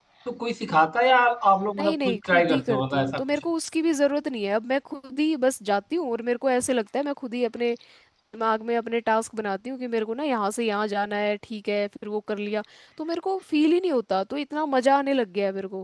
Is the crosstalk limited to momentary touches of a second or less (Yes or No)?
No